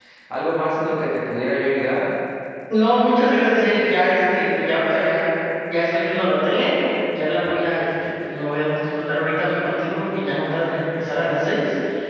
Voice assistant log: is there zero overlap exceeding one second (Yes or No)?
Yes